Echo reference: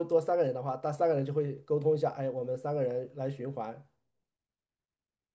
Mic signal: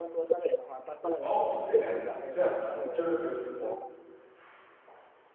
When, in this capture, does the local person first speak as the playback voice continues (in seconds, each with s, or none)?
1.2 s